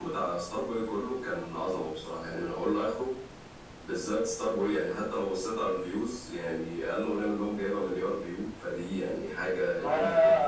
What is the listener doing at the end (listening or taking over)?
taking over